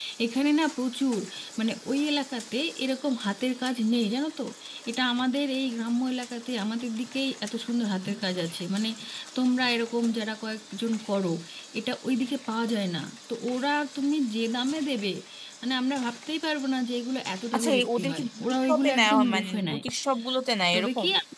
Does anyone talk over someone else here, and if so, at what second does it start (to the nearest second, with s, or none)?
18 s